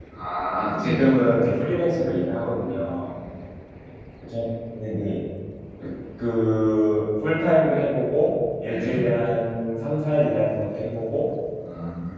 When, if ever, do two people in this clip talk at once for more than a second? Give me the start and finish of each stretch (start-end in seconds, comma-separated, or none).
none